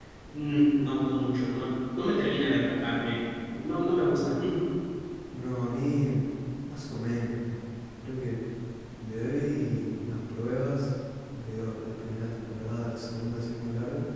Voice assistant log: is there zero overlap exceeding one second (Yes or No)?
Yes